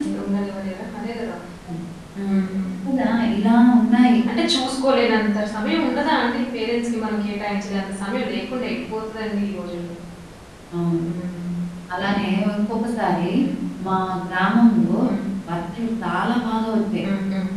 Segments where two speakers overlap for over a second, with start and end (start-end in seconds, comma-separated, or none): none